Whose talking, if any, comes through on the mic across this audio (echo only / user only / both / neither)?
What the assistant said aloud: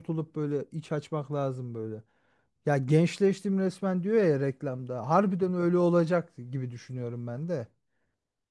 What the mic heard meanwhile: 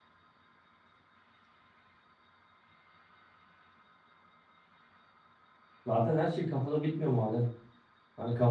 user only